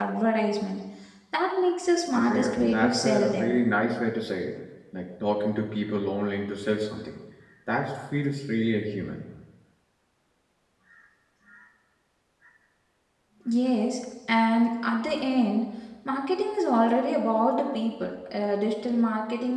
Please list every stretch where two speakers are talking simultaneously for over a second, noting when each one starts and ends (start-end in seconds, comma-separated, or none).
2.1-3.5